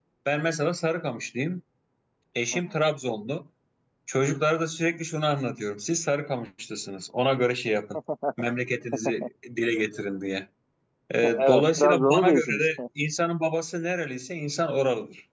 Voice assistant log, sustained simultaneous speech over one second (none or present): present